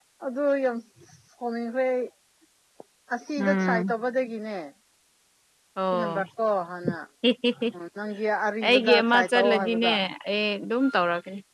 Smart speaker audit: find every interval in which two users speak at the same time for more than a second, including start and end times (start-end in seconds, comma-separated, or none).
8.7-9.9